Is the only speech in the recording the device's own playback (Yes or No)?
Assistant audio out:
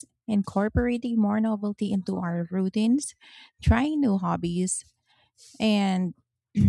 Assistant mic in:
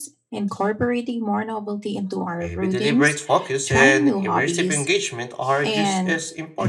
No